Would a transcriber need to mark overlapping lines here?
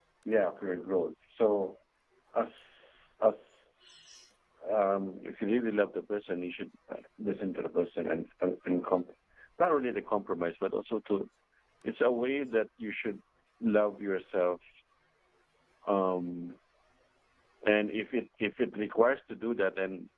No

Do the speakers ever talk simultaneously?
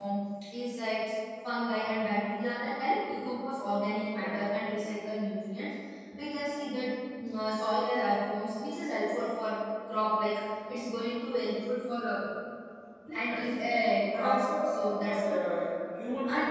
Yes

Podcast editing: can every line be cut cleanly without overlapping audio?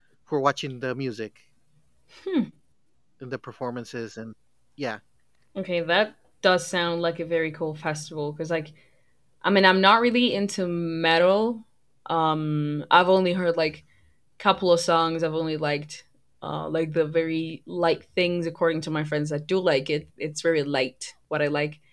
Yes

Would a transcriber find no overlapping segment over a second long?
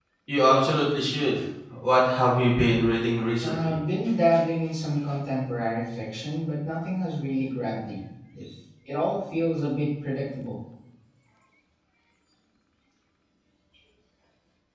Yes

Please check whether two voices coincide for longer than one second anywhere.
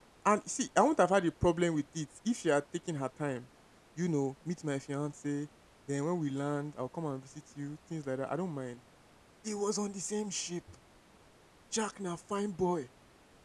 No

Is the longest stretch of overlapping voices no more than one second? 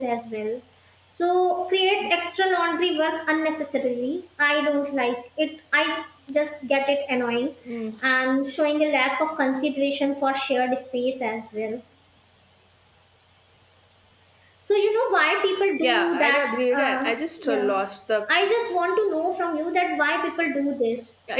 No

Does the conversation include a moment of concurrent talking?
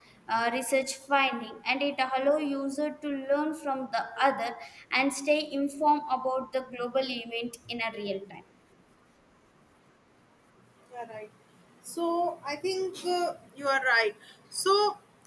No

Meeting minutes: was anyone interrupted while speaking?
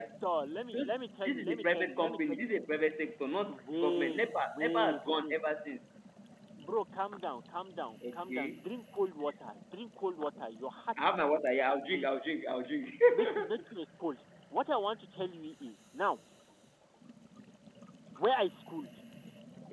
Yes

